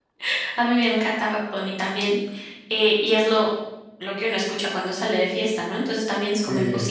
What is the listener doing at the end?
listening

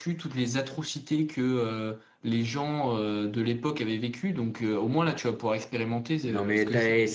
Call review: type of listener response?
taking over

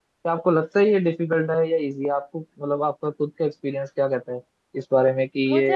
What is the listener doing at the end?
taking over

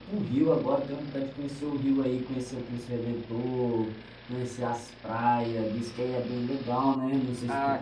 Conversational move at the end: taking over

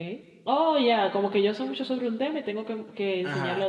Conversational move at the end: taking over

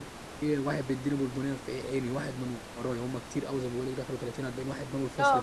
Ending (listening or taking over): taking over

